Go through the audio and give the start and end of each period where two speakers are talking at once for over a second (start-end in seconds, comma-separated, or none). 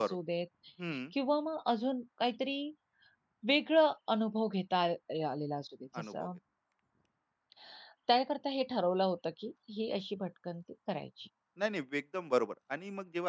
none